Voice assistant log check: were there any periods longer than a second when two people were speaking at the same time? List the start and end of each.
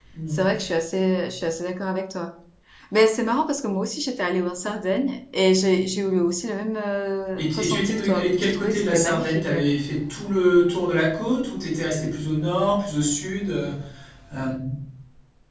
7.4-9.6

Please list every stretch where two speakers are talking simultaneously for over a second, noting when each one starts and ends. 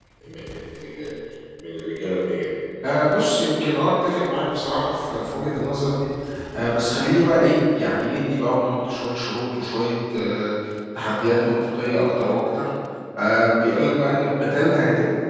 none

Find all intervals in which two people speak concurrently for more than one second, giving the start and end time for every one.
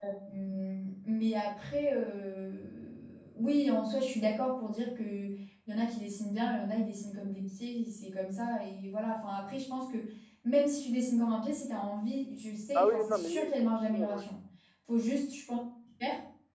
12.8-14.3

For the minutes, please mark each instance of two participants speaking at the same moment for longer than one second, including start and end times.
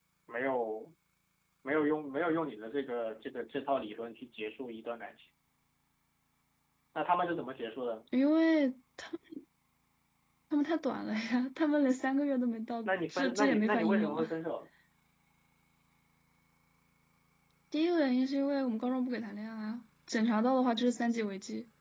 12.8-14.3

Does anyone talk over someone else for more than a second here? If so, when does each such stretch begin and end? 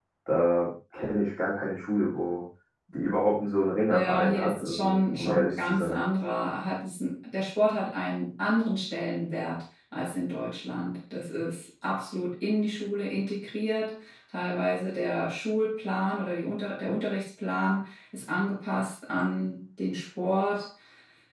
3.9-6.0

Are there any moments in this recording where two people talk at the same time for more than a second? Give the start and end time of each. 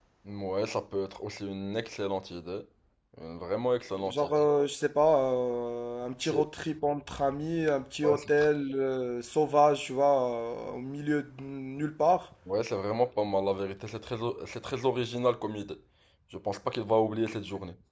none

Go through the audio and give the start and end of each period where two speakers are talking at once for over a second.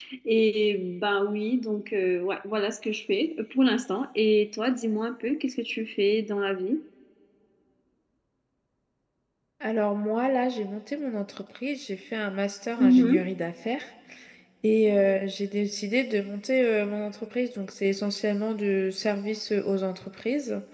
none

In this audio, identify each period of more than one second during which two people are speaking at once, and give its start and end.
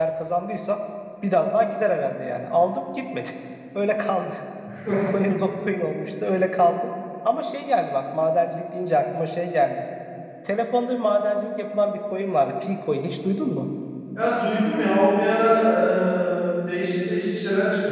none

